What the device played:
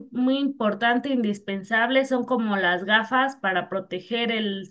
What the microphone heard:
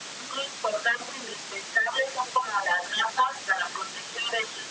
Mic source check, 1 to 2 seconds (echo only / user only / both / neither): echo only